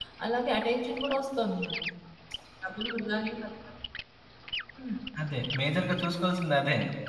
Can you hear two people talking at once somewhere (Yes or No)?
No